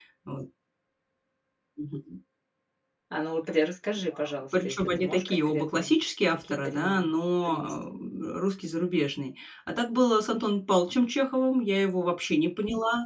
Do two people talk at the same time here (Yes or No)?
Yes